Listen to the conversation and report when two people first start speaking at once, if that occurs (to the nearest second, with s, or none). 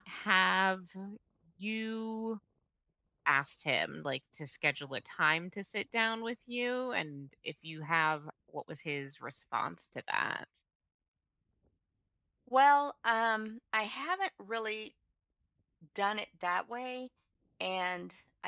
none